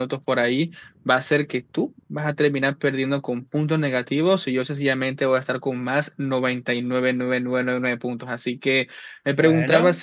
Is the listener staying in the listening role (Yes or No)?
Yes